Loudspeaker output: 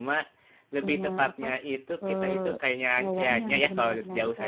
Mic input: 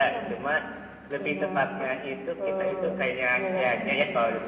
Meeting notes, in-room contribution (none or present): none